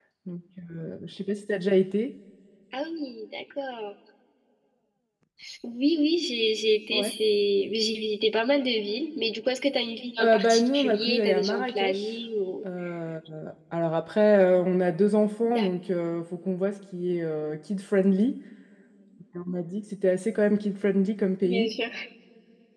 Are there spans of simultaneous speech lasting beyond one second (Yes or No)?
Yes